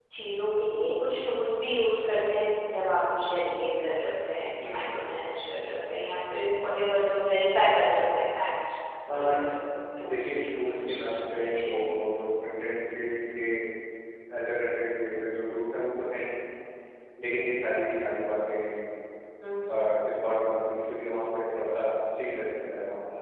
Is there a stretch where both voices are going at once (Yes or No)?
Yes